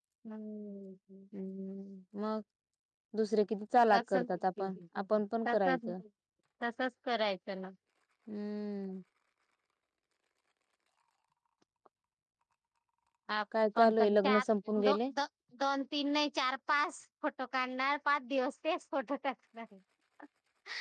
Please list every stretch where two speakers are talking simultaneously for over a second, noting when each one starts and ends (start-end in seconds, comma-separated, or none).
13.8-15.0